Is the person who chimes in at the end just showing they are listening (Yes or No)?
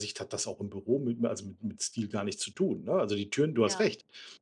Yes